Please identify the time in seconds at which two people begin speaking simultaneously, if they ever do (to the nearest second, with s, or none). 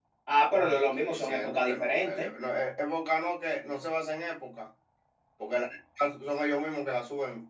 1 s